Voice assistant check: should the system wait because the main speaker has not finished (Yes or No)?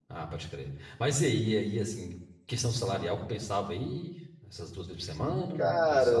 No